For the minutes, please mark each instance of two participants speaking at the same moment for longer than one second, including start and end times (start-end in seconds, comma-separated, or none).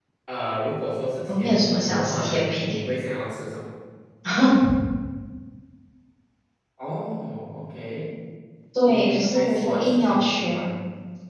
1.3-2.8, 8.8-10.7